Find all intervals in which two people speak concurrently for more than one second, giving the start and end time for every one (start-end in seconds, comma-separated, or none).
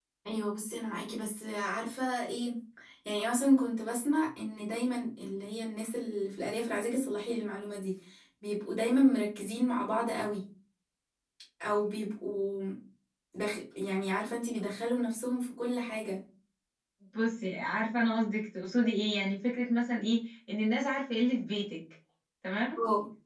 none